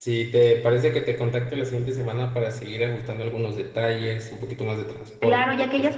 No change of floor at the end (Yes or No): No